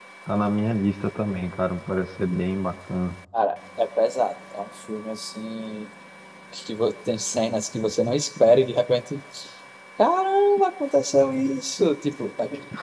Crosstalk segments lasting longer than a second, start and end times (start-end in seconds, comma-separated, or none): none